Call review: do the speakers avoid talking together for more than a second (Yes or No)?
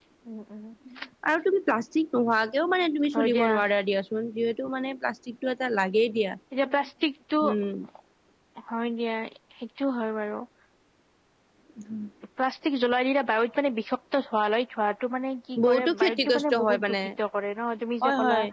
No